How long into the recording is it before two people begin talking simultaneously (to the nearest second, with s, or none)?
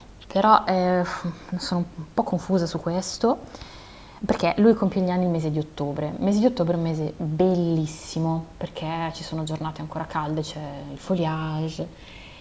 none